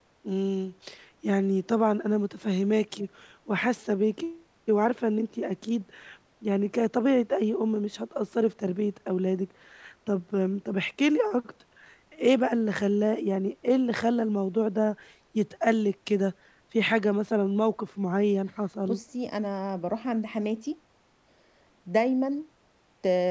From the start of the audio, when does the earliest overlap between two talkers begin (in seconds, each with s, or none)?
none